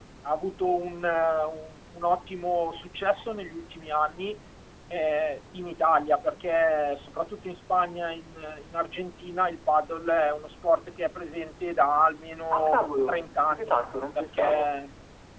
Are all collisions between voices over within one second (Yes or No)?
No